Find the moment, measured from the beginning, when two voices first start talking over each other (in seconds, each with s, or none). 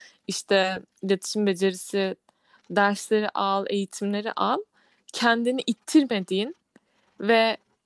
none